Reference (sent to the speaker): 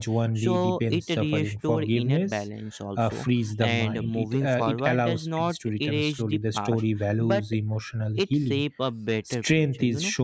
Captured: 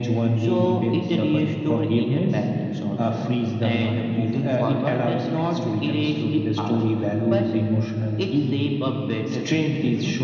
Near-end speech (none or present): none